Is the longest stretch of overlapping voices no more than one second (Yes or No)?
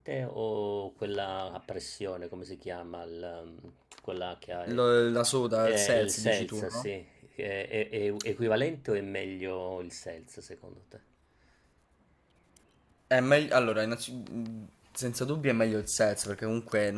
No